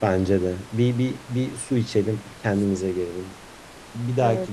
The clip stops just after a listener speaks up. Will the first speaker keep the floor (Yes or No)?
Yes